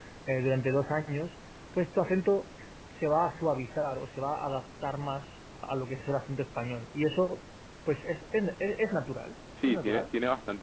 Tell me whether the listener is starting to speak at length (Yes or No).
Yes